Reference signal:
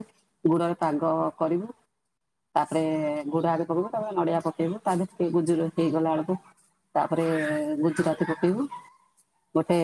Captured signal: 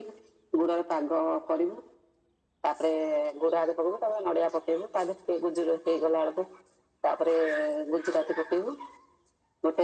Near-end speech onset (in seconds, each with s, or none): none